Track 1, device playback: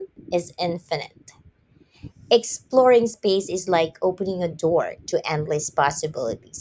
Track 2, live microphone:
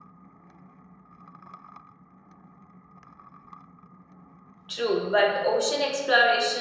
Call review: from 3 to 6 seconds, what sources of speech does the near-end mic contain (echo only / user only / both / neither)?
user only